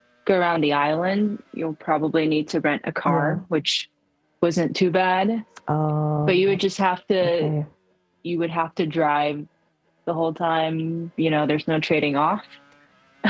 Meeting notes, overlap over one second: none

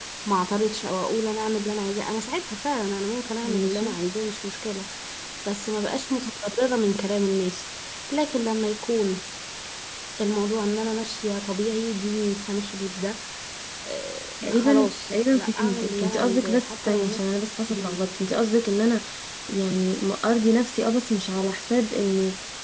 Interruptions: present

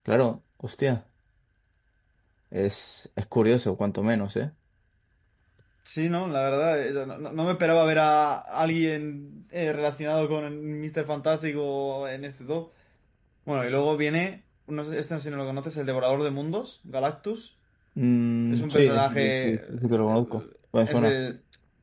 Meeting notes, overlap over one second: present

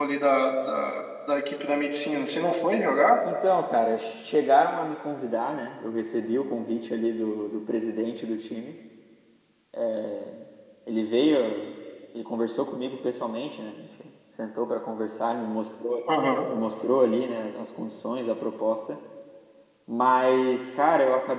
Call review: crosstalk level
none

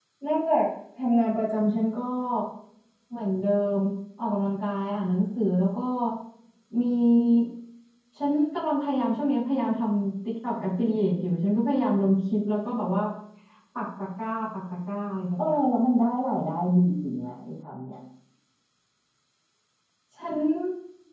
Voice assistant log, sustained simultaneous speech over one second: none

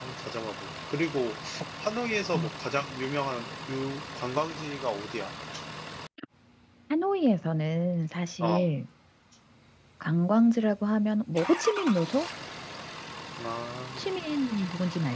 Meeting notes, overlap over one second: none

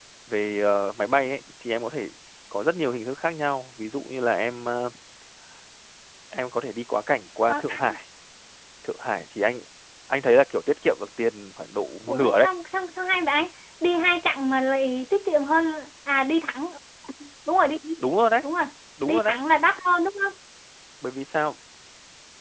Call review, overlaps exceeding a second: none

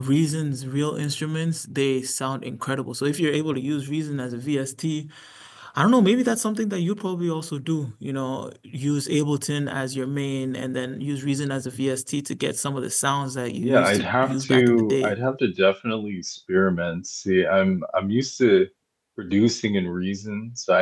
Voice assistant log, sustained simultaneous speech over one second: present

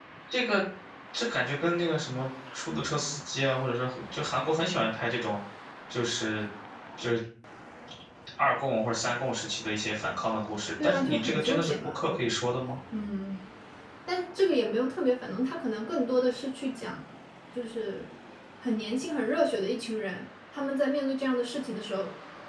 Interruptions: present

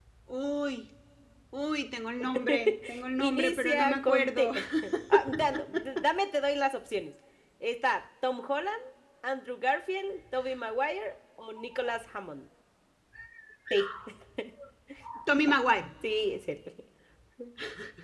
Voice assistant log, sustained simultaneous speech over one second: present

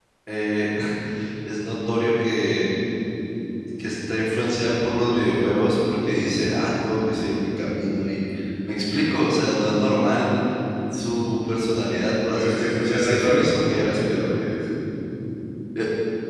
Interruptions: present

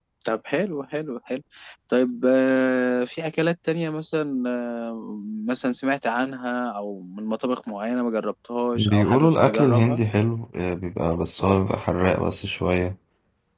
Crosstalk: present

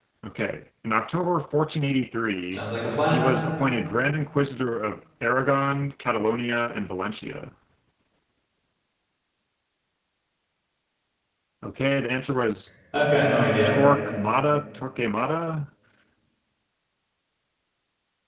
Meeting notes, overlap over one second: none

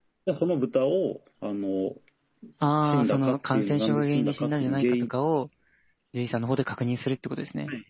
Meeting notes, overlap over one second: present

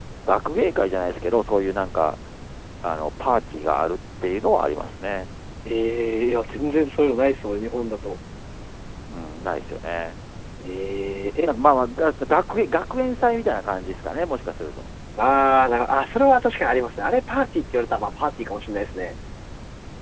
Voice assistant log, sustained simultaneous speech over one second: none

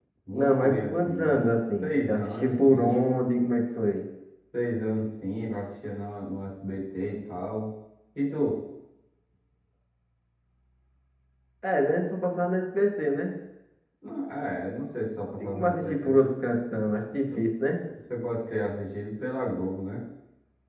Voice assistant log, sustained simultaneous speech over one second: present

